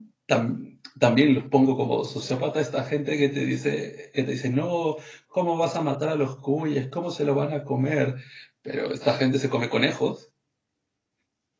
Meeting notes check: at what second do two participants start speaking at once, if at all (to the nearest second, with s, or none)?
none